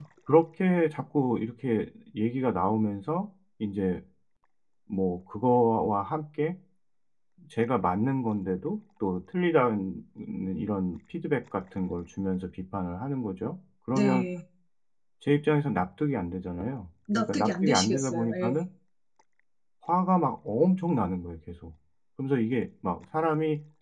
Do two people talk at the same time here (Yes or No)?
Yes